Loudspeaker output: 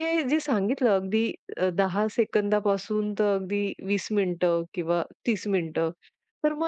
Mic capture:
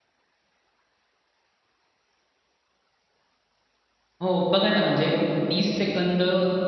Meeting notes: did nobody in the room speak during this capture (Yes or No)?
No